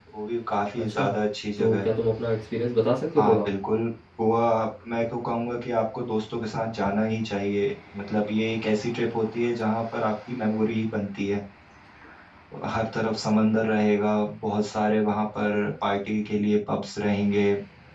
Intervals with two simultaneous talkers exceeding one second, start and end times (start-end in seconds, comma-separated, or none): none